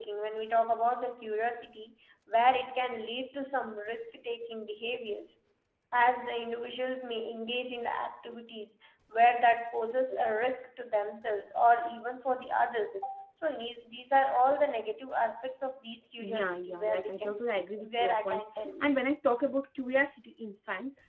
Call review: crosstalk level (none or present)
present